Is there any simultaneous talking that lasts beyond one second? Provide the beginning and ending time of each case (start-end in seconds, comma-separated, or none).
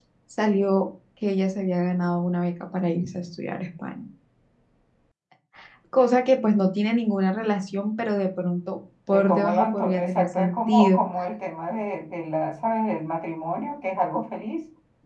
9.1-11.0